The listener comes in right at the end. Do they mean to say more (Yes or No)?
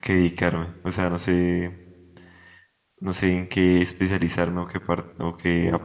Yes